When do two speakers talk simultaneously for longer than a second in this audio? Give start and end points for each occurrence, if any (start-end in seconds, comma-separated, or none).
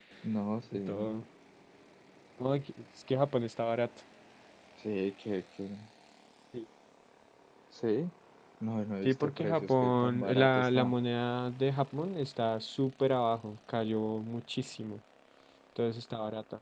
9.0-11.0